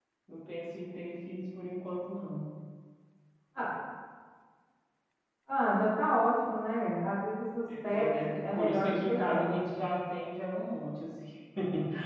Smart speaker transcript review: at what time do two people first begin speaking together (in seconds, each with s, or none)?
7.9 s